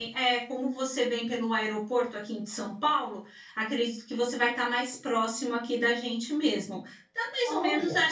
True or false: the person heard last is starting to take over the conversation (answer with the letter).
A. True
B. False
B